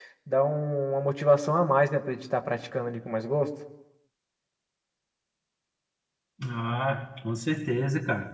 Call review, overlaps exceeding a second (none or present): none